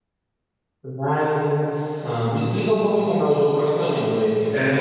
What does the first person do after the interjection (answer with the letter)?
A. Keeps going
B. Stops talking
B